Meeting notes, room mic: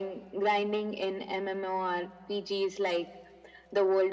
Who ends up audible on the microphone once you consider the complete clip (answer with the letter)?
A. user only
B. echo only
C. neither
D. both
B